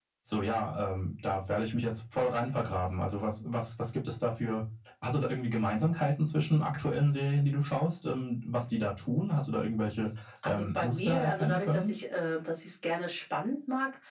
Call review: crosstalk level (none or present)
present